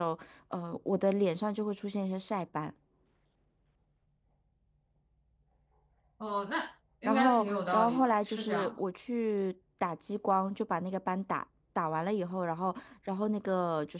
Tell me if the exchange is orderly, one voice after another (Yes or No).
No